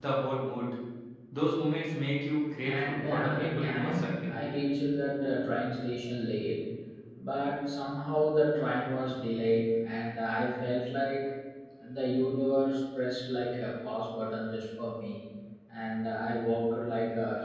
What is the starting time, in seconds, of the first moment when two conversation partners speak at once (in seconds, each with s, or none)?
2.6 s